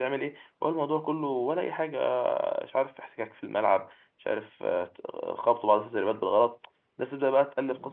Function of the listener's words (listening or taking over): listening